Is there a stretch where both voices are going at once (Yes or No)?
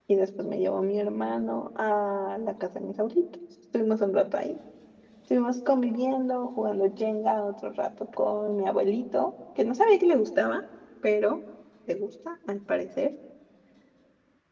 No